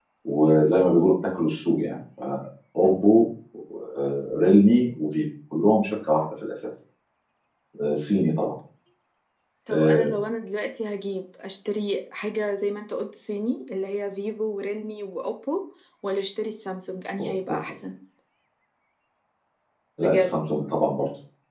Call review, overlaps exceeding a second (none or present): none